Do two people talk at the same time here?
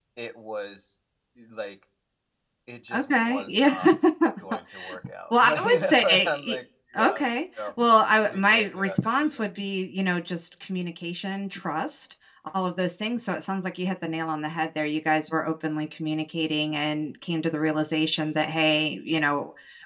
Yes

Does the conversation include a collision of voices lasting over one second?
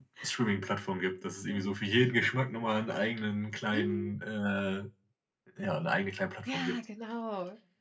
No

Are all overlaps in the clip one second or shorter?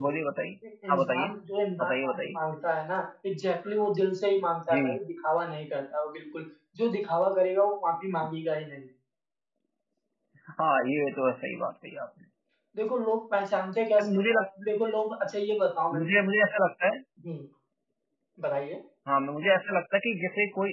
Yes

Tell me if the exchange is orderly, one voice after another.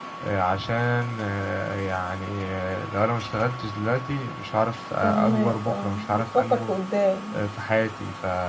No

